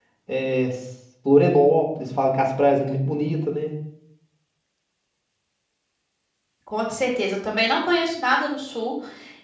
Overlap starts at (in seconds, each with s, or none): none